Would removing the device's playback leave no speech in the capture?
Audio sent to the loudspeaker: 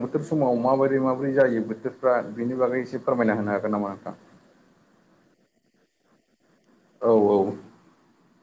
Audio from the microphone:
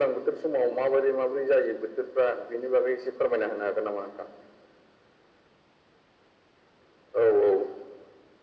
Yes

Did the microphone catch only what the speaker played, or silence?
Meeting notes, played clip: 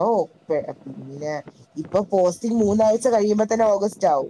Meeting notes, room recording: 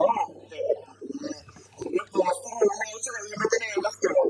Yes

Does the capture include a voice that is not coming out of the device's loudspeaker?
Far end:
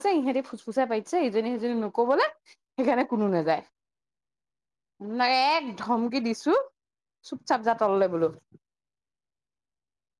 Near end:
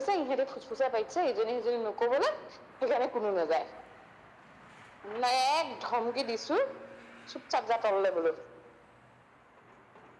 No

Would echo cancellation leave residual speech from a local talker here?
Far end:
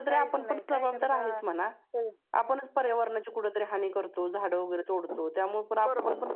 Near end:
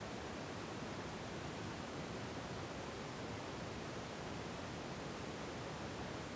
No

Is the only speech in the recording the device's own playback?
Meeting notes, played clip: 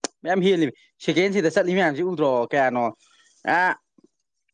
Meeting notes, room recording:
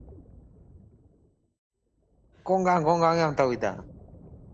No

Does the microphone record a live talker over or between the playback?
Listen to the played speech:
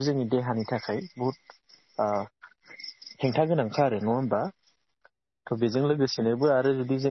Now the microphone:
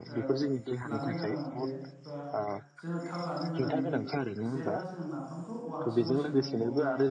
Yes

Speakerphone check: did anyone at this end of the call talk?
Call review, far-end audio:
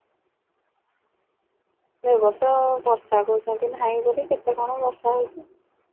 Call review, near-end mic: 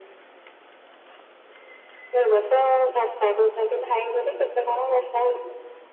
No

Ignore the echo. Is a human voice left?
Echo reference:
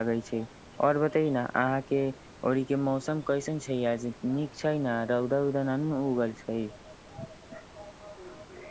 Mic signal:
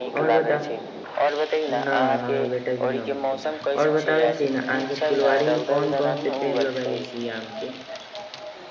Yes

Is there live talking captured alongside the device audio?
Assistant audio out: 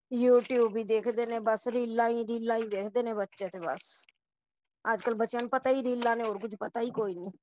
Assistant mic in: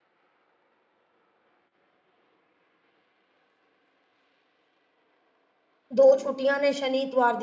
Yes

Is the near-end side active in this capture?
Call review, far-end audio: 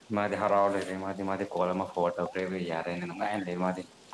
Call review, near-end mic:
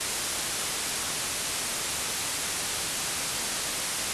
No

